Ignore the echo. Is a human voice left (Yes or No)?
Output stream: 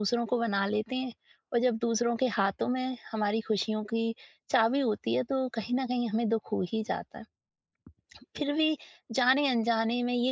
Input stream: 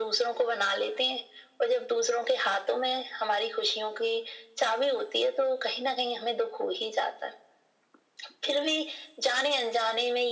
No